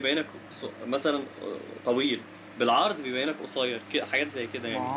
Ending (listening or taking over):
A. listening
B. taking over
B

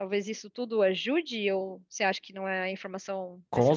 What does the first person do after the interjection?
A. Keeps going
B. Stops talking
B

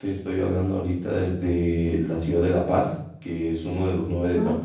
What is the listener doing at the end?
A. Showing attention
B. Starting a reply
A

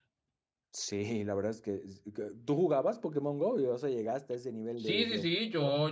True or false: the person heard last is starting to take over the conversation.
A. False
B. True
B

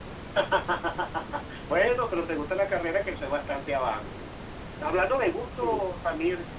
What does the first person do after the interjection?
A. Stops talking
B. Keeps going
B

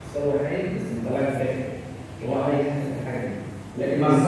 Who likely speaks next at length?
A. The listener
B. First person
A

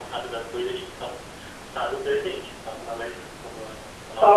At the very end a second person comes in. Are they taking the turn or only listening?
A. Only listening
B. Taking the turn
B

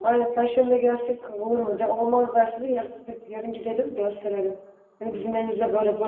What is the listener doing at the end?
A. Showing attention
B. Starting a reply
A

